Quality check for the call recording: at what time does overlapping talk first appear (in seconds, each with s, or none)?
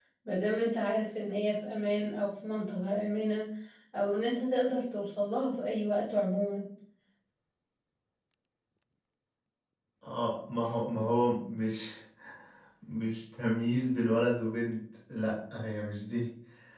none